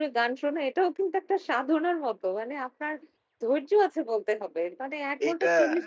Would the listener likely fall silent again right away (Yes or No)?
Yes